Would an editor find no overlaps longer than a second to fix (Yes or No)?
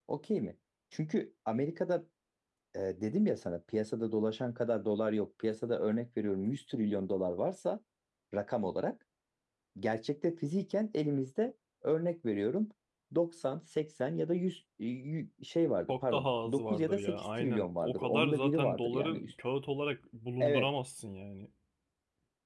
No